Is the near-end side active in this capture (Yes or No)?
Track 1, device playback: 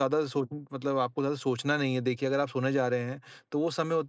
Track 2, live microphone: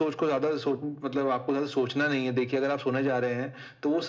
No